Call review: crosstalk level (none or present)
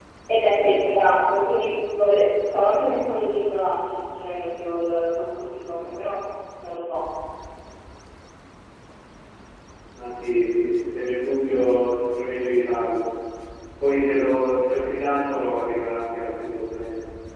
none